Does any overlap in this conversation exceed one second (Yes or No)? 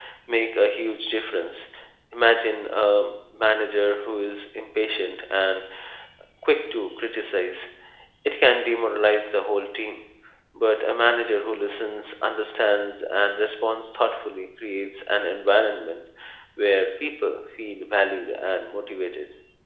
No